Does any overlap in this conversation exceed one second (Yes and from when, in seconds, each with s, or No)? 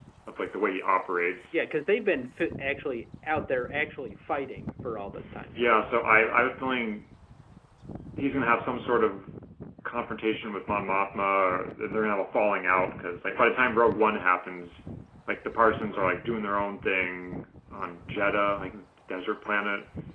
No